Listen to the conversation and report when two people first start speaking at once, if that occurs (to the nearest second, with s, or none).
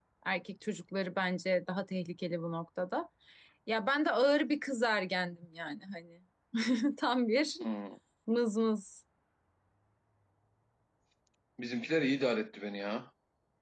none